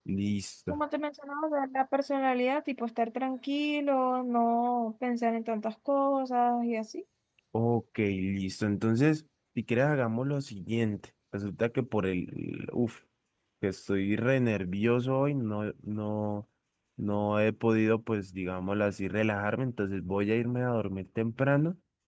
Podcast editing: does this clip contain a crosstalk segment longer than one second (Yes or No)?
No